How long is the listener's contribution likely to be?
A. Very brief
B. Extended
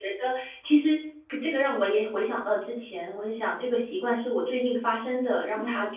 A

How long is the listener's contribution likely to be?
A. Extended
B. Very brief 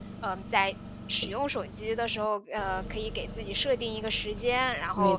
B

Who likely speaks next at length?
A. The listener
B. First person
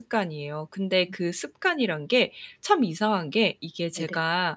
B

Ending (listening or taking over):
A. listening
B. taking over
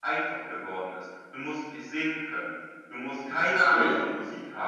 A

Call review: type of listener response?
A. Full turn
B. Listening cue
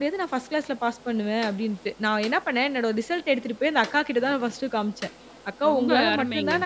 B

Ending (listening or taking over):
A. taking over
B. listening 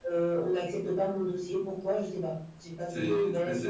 A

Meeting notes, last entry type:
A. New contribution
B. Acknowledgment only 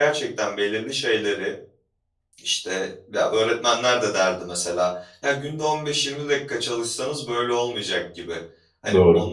B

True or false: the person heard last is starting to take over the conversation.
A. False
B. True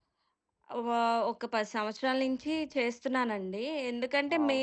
A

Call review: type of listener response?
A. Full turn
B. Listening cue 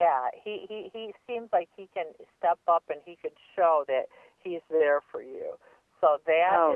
B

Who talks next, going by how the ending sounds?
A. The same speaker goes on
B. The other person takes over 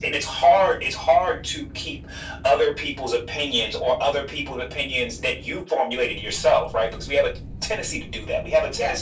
A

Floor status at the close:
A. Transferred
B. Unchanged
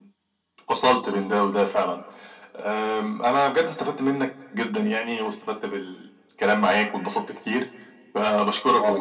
B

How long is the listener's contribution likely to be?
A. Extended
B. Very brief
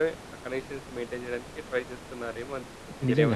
A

